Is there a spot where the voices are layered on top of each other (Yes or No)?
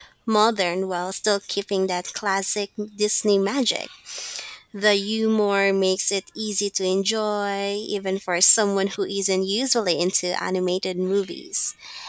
No